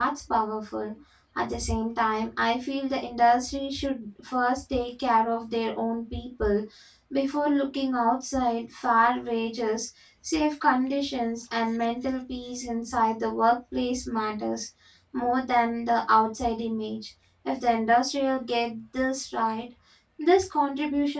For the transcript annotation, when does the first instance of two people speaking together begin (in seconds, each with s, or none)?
none